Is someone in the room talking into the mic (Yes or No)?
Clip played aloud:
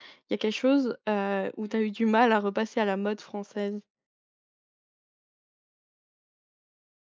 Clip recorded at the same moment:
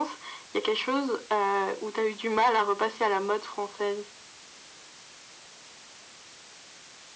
No